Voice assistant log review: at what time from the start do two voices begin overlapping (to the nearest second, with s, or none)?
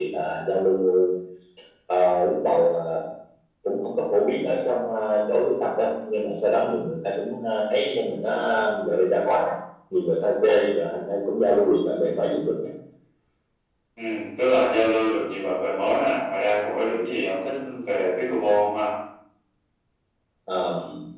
none